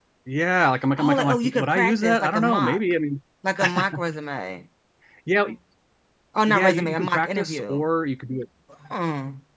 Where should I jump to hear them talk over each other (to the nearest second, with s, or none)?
1 s